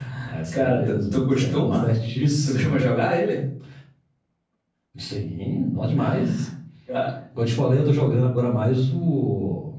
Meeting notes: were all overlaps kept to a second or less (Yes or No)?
No